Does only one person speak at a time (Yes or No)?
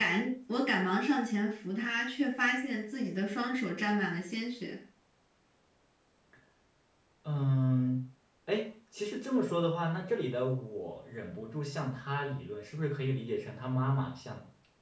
Yes